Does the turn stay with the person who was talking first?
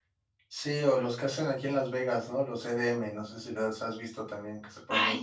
No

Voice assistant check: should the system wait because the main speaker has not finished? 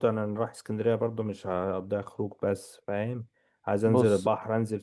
Yes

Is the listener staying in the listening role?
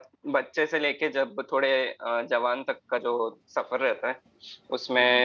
Yes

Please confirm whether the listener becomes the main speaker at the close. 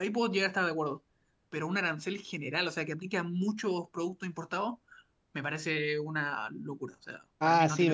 Yes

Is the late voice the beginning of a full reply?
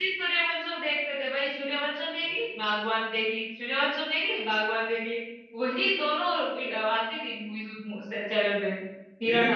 Yes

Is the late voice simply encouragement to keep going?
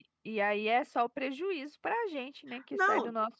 No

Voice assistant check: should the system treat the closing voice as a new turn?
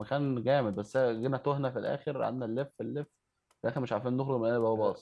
Yes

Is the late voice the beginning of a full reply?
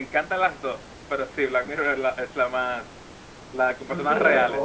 Yes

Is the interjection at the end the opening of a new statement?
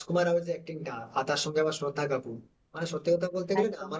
No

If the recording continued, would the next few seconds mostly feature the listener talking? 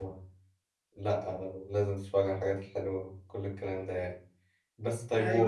No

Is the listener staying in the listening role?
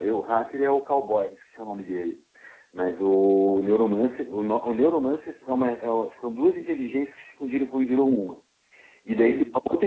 Yes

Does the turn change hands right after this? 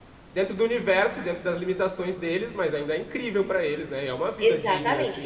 Yes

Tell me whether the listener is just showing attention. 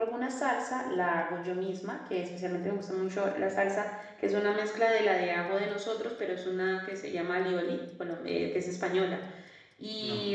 Yes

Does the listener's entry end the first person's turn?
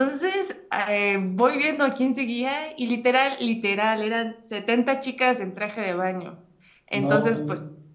No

